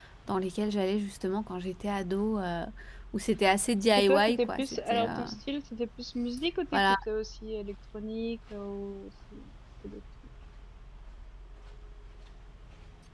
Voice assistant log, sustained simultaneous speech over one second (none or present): present